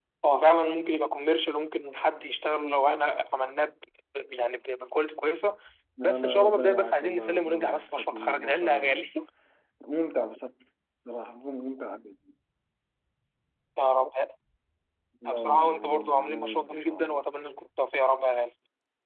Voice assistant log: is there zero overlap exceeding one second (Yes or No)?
No